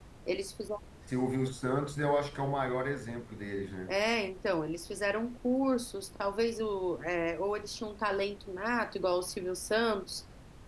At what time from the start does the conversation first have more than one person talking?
none

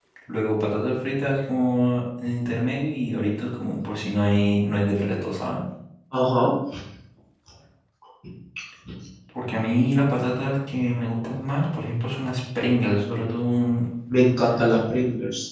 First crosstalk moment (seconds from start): none

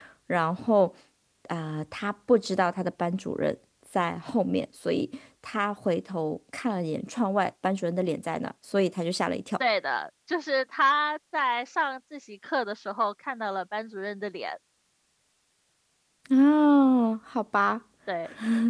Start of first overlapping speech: none

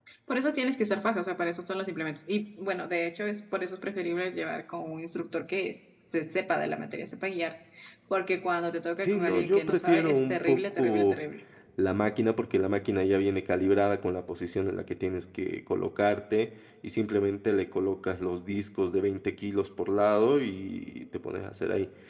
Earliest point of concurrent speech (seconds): 9.0 s

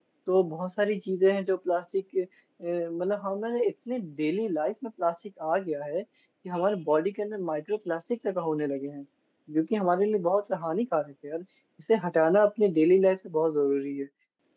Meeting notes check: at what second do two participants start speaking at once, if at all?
none

